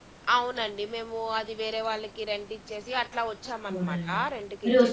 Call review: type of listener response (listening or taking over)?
taking over